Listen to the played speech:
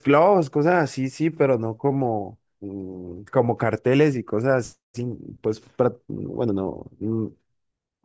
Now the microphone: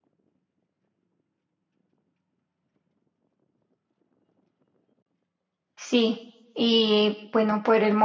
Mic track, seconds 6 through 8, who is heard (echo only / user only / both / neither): user only